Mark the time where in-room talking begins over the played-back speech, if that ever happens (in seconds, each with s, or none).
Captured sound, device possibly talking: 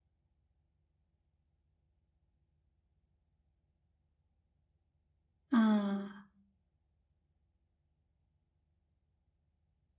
5.5 s